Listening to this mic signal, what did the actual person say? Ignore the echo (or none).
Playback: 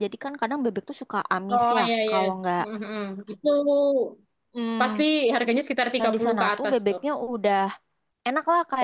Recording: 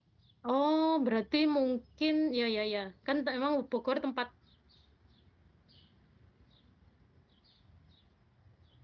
Oh, berarti mungkin, ya, ya, ya. Kan t- emang Bogor tempat